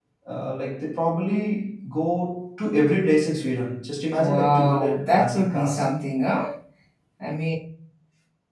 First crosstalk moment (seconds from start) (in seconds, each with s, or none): 4.2 s